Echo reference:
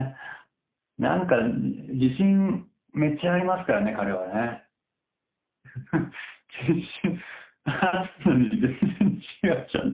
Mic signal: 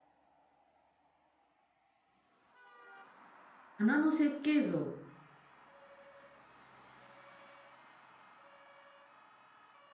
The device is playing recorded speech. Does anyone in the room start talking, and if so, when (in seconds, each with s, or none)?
3.8 s